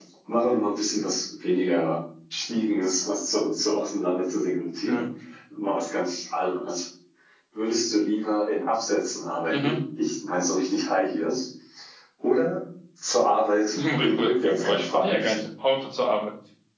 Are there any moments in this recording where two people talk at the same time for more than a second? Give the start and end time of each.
13.8-15.4

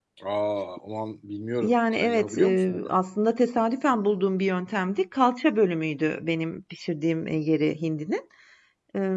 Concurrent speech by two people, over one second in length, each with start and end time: 1.6-2.9

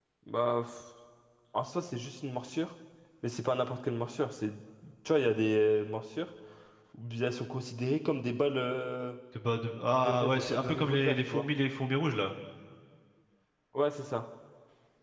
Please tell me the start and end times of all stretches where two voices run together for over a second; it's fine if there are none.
9.9-11.4

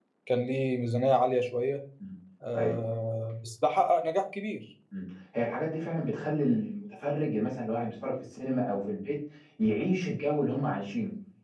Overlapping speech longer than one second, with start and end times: none

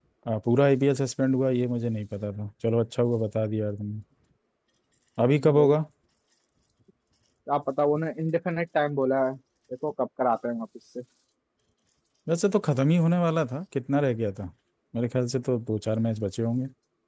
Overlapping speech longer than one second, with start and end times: none

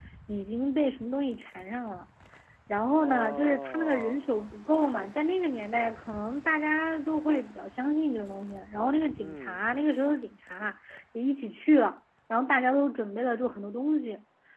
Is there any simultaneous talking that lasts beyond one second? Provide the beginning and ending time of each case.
2.9-4.2

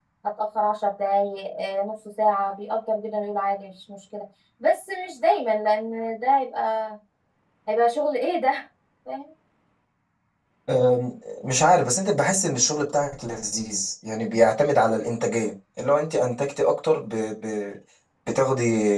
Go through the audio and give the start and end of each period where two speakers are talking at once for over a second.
none

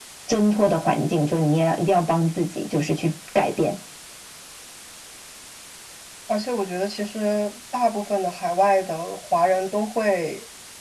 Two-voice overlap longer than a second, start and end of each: none

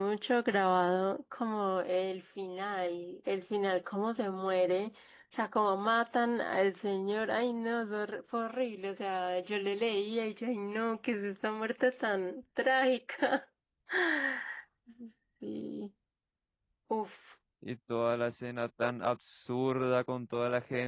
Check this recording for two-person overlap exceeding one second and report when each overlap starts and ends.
none

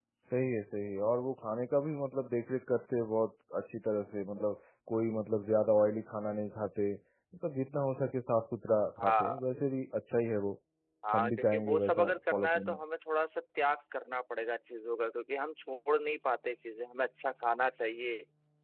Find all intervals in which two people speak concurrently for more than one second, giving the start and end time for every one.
11.2-12.8

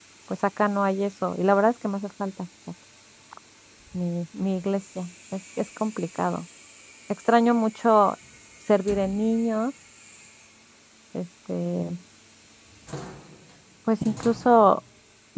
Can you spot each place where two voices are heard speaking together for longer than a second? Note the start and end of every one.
none

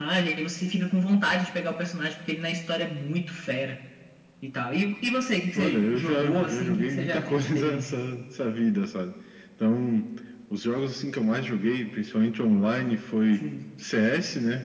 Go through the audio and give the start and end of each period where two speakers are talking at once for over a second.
5.6-8.0

